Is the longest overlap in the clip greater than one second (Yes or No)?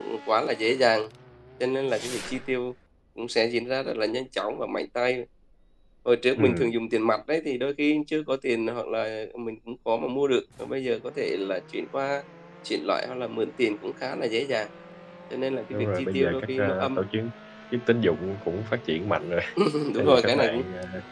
Yes